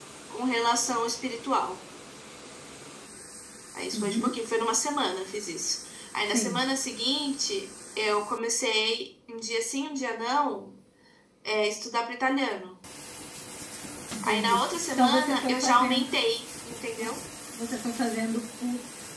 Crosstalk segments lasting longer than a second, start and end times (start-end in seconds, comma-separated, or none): 14.2-16.2